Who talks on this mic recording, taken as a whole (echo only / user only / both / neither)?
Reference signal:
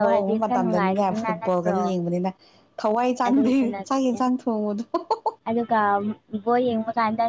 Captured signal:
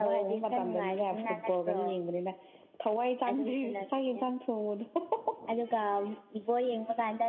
echo only